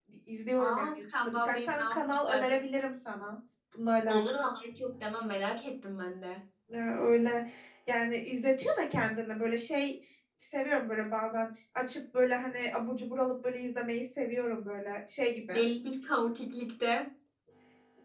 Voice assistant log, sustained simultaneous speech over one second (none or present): present